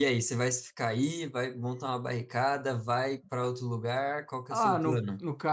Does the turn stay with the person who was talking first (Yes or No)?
No